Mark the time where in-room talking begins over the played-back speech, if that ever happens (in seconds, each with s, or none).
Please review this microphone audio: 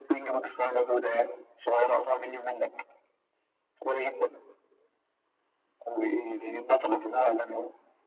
none